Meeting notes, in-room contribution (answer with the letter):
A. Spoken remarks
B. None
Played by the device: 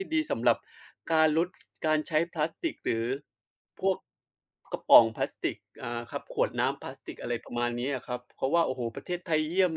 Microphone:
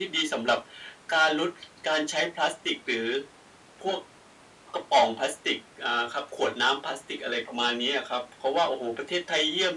B